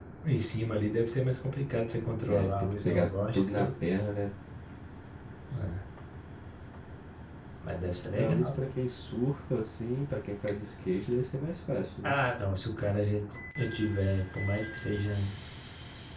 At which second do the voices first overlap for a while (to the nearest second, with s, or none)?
2 s